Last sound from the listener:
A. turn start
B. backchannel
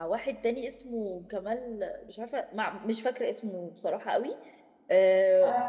B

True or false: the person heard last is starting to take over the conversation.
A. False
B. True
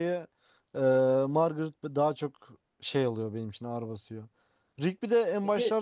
A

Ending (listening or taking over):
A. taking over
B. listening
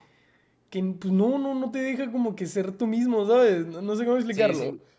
A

